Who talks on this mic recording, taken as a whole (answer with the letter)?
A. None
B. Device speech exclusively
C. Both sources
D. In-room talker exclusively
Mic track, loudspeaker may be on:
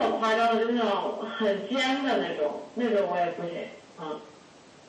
B